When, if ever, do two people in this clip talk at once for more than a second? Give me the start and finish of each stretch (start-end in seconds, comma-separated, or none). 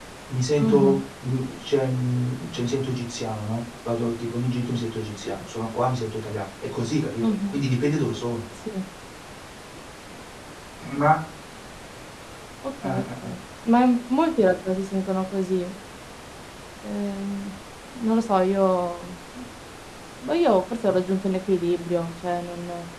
none